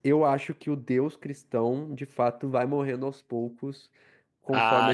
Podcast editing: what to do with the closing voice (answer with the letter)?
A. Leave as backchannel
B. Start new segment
B